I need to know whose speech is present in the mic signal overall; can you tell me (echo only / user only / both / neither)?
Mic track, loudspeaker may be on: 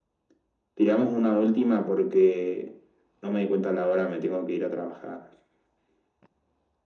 echo only